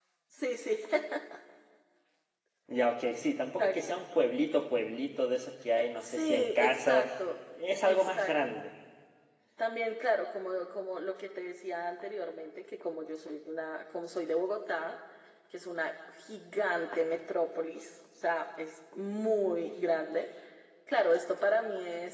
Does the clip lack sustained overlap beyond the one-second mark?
No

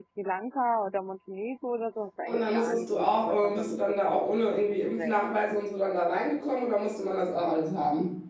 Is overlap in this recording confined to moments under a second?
No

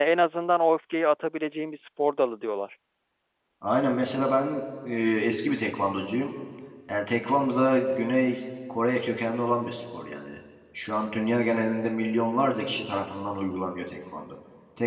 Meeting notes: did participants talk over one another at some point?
No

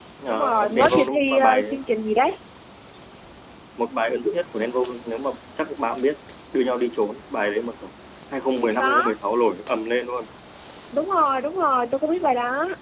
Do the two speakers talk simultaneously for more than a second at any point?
Yes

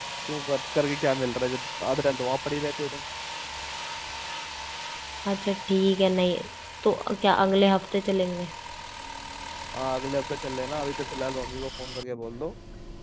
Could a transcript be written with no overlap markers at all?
Yes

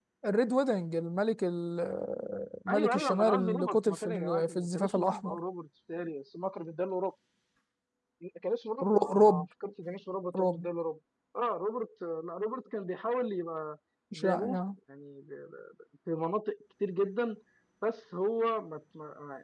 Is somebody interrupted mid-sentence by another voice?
Yes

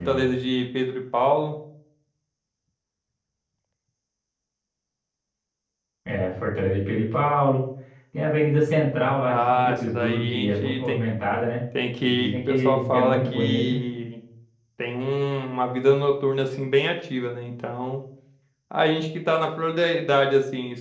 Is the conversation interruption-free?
No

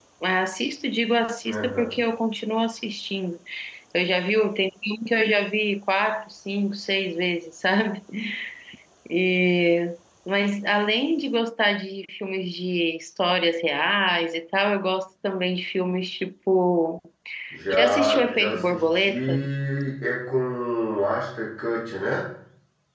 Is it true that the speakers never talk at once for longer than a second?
No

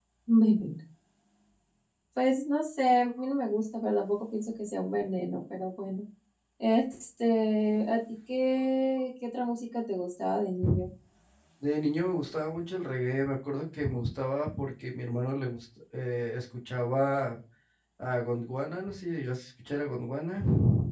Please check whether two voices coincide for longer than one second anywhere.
No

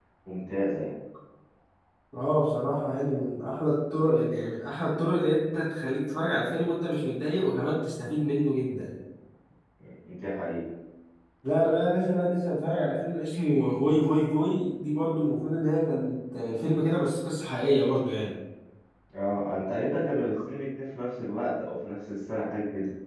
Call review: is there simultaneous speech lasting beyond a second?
No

